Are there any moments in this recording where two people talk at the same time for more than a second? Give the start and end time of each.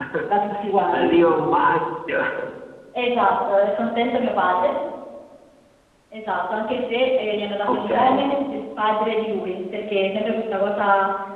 none

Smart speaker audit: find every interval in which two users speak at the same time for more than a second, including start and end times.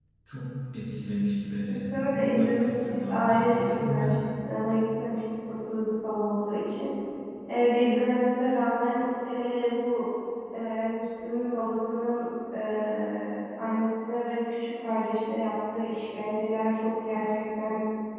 1.9-4.1

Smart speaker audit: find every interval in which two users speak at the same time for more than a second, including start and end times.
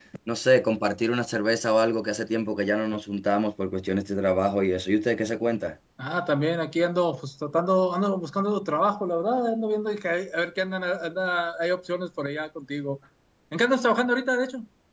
none

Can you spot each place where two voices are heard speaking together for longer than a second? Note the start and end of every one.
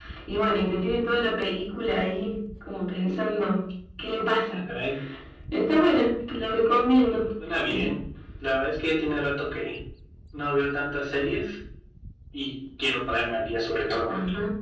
none

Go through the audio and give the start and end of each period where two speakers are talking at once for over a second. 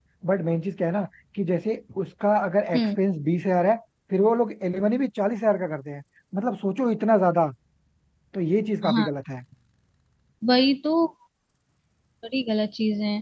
none

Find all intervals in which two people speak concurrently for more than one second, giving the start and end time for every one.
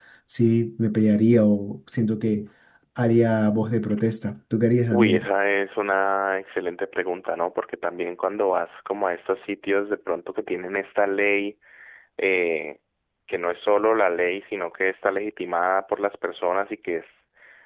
none

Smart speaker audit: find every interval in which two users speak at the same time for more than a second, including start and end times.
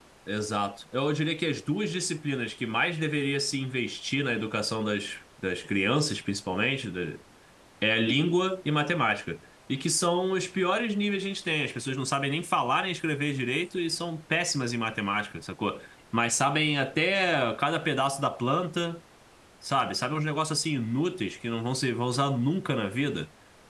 none

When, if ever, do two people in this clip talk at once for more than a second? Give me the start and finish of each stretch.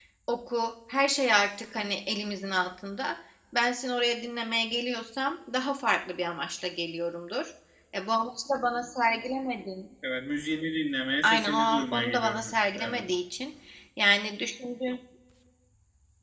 11.2-13.0

